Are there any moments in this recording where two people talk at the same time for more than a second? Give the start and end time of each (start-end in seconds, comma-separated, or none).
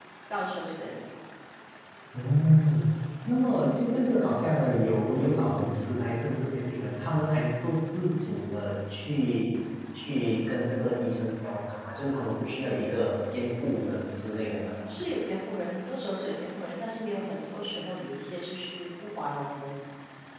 none